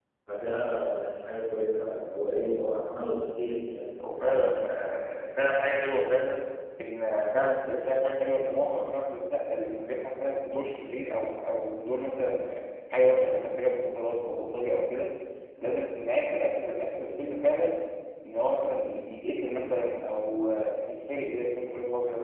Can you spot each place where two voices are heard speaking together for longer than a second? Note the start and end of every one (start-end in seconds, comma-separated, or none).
none